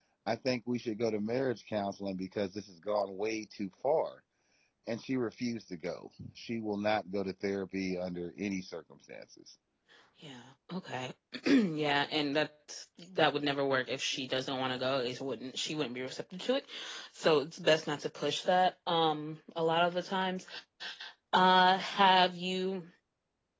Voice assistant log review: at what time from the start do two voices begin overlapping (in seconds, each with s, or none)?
none